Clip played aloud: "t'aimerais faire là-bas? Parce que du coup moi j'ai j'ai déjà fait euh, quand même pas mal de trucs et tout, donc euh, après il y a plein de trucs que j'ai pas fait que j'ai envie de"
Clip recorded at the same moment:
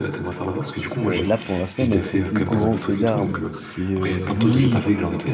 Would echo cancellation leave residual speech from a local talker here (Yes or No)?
Yes